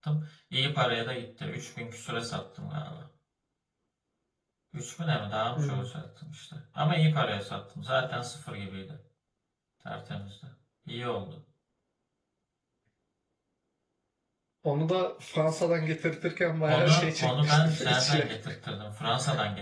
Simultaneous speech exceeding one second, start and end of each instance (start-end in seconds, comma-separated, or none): 16.7-18.3